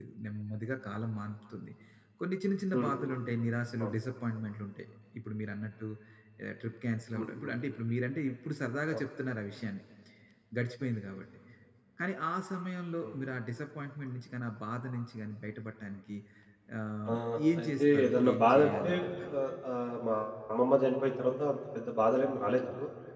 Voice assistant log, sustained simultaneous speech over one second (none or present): present